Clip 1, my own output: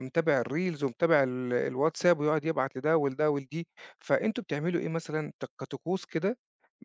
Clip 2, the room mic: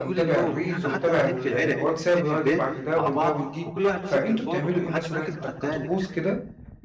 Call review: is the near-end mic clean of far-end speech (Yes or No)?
No